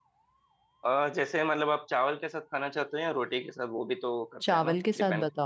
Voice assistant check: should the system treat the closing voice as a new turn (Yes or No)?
Yes